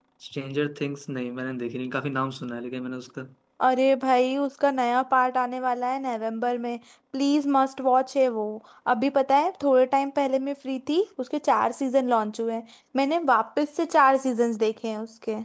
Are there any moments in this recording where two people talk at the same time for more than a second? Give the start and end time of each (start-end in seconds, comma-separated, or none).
none